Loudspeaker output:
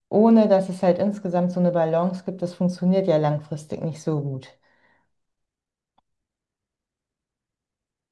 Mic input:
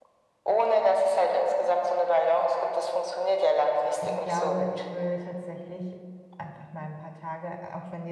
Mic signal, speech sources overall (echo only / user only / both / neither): both